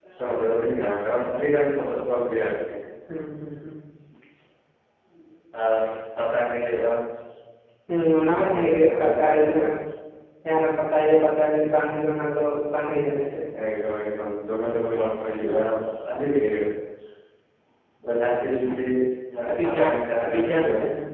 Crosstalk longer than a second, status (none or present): present